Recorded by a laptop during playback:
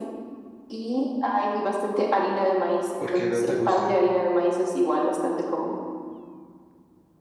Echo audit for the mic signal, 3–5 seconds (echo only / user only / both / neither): both